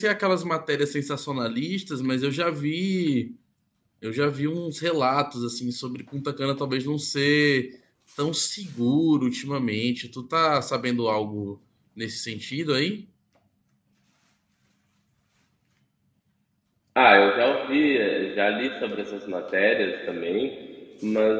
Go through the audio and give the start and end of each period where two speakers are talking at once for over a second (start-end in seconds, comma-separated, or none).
none